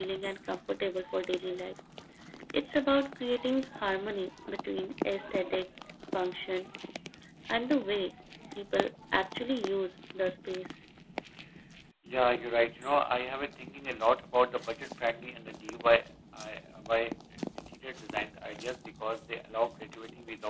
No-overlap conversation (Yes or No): Yes